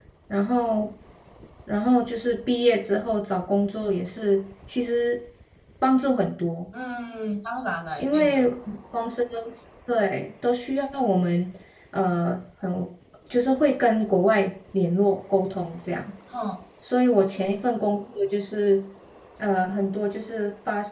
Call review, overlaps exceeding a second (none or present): none